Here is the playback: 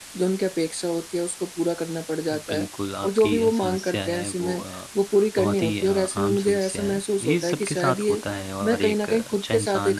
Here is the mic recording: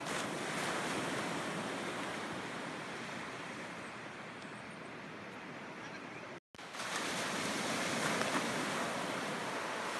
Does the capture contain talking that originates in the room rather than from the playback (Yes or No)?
No